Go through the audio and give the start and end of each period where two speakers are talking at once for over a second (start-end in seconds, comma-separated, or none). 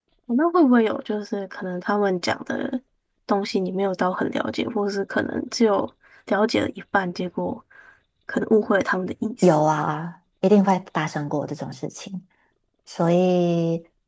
none